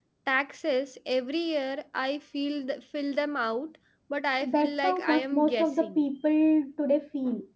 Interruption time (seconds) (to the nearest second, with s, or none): 4 s